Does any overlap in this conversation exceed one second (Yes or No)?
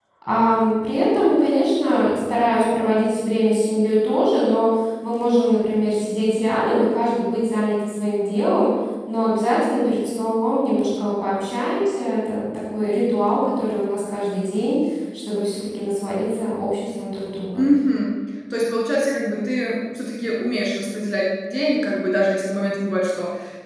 No